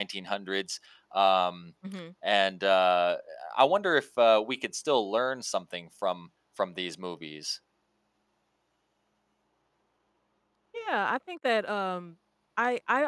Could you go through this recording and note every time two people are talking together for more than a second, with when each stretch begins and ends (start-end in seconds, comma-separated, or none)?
none